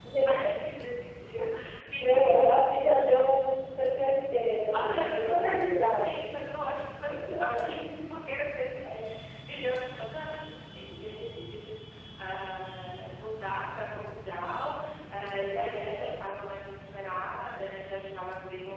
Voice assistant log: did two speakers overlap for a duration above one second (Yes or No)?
Yes